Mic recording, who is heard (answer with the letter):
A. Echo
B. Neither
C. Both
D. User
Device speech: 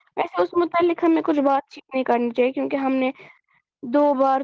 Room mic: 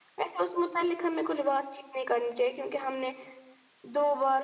A